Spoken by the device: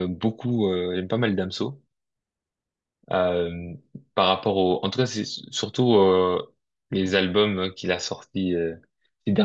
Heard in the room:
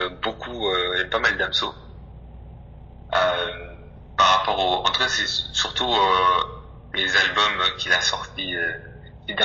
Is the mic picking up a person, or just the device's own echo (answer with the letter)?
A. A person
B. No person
B